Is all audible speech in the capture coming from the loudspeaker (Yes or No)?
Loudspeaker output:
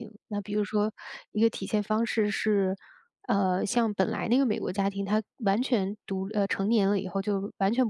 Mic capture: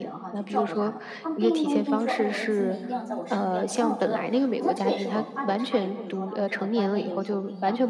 No